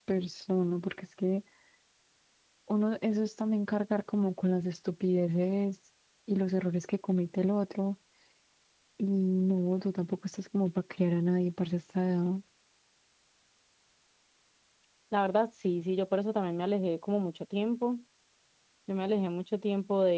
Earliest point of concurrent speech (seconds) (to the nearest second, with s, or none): none